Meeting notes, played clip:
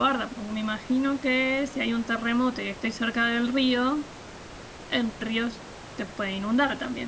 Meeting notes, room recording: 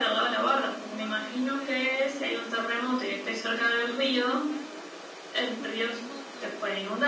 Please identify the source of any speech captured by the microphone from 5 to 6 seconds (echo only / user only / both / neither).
both